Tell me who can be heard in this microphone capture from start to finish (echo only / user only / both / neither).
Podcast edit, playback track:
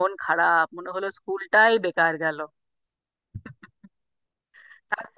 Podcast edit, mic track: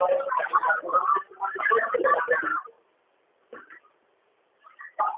echo only